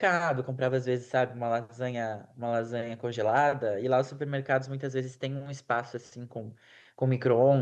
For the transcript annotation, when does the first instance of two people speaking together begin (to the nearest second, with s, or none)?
none